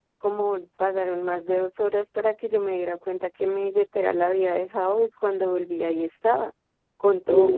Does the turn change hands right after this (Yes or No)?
No